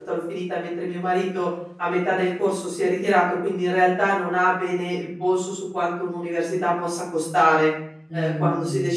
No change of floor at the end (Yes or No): Yes